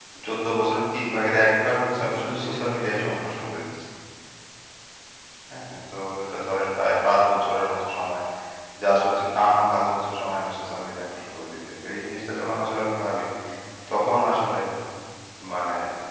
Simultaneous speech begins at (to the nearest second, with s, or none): 2 s